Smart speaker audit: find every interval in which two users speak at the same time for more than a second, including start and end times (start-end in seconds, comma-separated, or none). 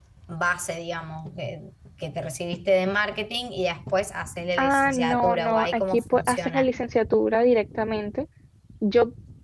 4.6-6.7